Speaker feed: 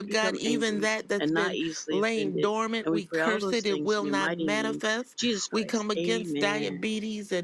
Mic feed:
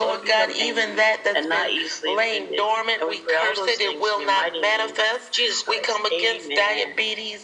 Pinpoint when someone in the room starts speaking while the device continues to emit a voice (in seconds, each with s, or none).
none